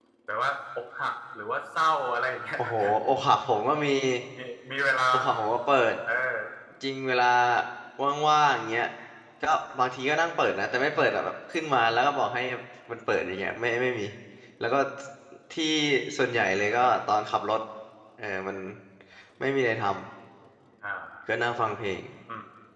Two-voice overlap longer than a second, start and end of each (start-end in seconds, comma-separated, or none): none